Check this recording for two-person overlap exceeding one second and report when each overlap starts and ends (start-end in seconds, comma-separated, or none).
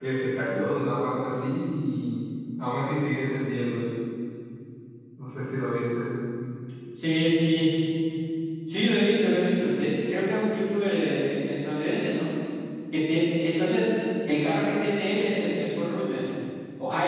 none